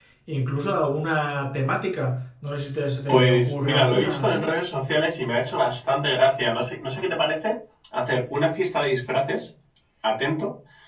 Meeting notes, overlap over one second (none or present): present